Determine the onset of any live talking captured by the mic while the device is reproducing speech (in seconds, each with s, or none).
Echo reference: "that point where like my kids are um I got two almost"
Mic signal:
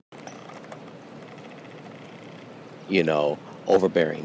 2.9 s